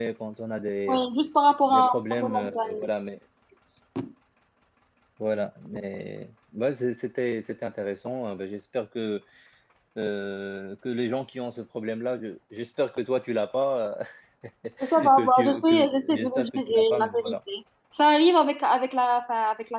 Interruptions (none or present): present